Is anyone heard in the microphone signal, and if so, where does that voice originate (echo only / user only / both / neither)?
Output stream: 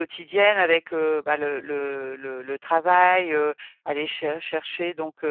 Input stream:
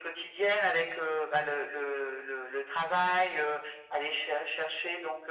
echo only